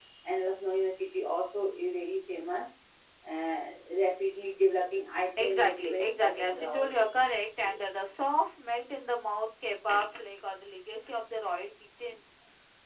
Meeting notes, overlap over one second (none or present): present